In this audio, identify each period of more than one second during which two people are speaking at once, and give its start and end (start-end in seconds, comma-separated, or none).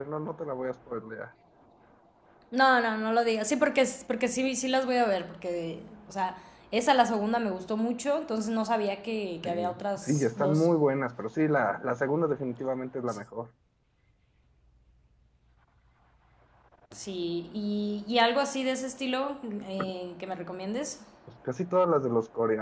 9.4-10.7